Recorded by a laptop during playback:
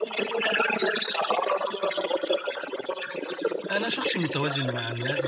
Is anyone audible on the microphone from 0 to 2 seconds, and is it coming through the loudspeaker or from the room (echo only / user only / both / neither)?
echo only